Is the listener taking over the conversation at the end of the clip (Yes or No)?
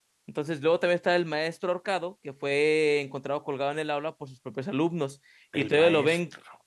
No